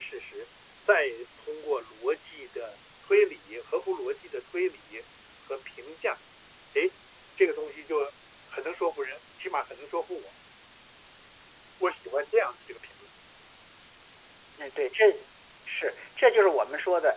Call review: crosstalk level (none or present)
none